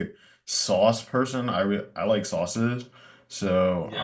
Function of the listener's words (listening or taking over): taking over